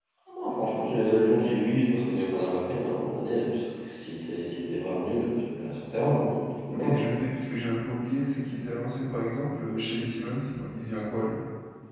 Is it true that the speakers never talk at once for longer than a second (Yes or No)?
Yes